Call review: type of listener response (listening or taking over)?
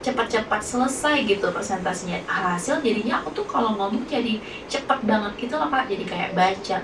listening